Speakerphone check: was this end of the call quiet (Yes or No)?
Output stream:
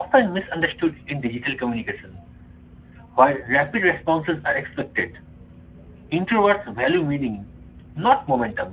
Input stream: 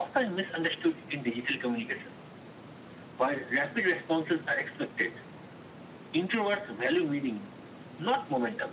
Yes